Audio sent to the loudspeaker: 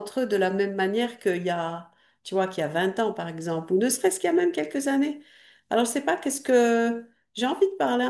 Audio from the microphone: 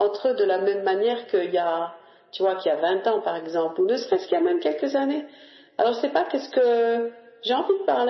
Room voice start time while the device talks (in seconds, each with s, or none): none